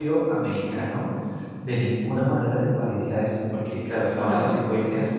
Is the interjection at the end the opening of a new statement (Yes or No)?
No